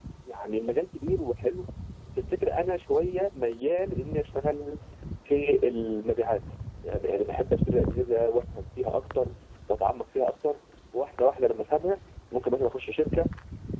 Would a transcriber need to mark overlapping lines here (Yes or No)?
No